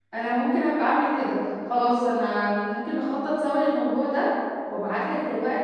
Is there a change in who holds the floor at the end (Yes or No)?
No